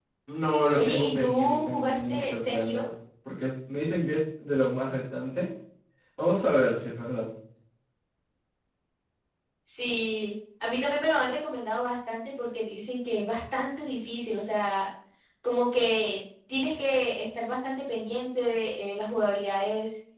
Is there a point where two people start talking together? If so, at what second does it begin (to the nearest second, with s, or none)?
1 s